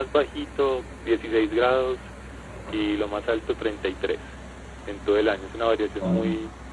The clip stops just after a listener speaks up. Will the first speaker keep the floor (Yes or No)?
Yes